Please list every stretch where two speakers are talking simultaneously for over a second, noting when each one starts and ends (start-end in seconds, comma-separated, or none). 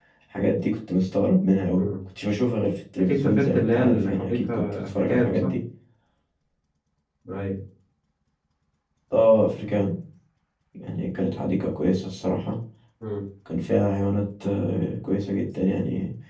3.0-5.5